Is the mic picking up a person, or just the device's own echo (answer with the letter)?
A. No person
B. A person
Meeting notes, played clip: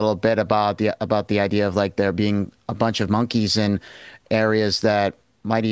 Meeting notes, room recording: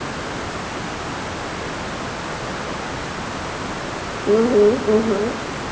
B